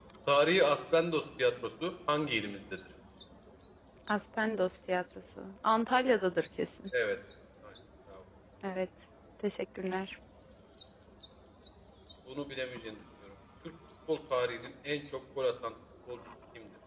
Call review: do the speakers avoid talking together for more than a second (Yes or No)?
Yes